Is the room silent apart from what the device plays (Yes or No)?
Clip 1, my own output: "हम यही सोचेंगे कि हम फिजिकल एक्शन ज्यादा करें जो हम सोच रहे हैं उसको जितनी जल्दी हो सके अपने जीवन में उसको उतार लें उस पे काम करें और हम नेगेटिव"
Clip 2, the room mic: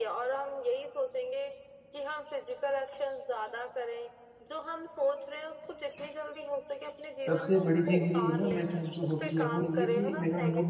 No